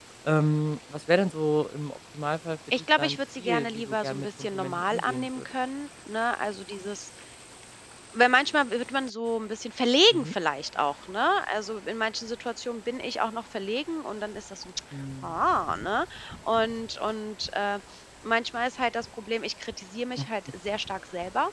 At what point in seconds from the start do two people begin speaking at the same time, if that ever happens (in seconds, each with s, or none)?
3.0 s